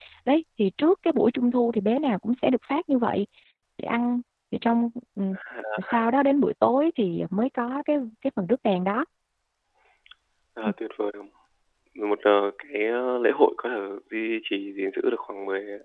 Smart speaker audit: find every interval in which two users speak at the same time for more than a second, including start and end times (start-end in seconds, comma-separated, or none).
none